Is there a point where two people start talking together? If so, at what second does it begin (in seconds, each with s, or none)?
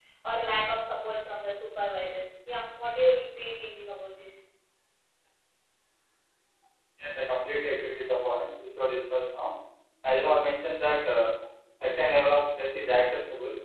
none